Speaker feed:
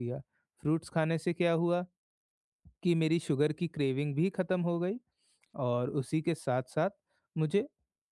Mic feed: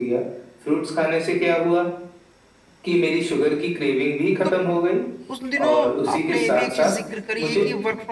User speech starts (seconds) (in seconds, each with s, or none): 4.4 s